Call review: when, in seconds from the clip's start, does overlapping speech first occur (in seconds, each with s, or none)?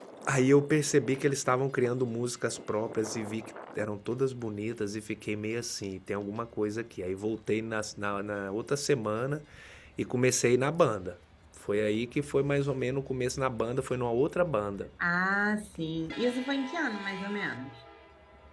none